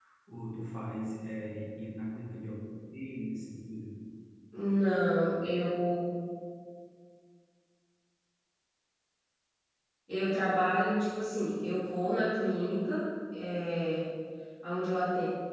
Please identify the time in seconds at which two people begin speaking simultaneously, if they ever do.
none

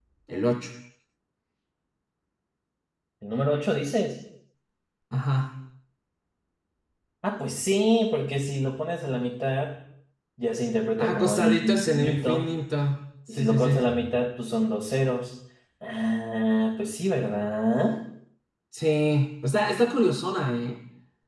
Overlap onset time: 11 s

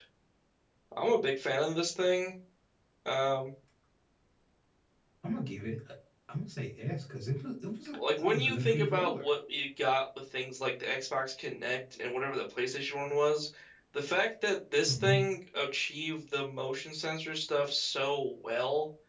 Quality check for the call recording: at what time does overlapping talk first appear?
8 s

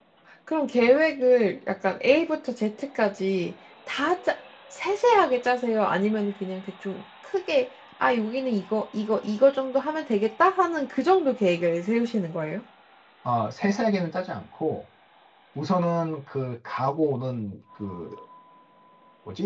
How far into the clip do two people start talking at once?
none

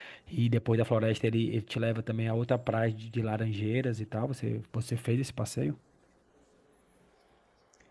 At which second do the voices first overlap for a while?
none

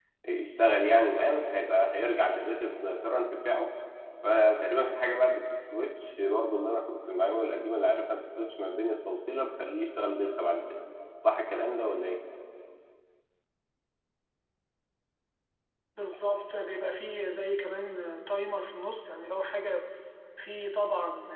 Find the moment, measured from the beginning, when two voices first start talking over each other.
none

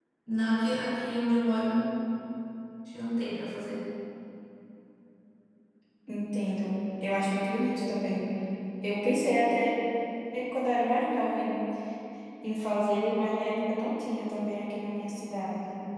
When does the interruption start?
none

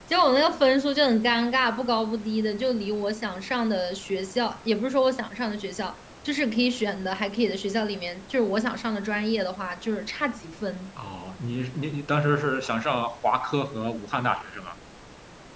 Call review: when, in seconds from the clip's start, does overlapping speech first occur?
none

